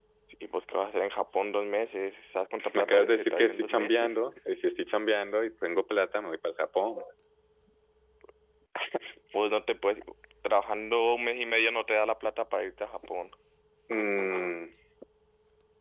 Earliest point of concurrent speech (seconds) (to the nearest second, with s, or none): 3 s